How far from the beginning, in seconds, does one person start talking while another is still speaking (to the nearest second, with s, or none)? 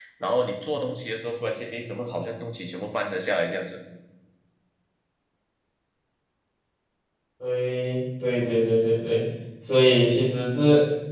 none